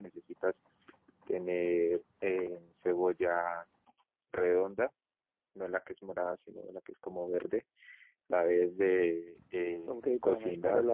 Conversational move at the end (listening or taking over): taking over